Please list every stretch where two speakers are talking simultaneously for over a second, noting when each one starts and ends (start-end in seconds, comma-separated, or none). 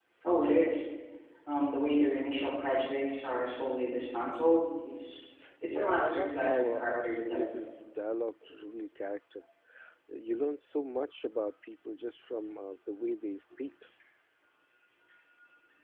5.7-7.7